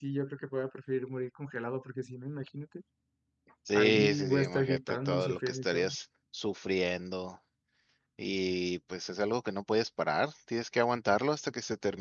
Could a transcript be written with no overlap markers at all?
No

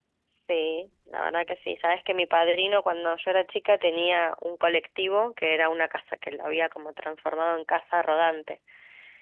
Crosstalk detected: No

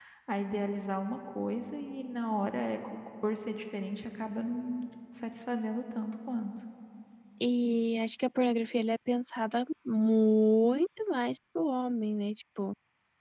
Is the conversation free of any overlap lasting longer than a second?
Yes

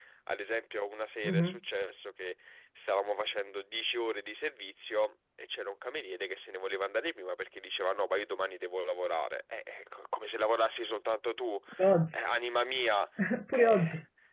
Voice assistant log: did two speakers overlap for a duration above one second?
No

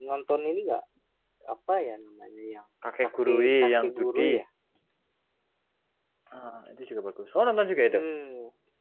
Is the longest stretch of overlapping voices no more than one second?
No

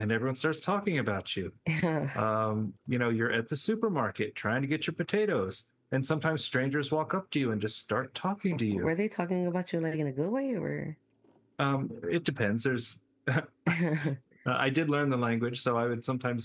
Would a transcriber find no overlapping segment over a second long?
Yes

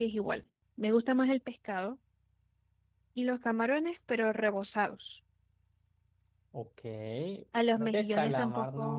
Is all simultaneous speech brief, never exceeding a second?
No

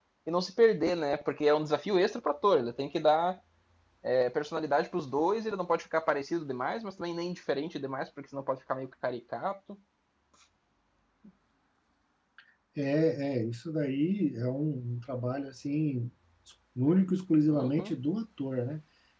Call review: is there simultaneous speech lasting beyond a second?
No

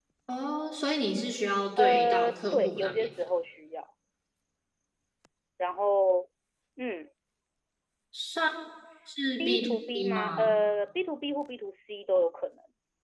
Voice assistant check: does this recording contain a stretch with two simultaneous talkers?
Yes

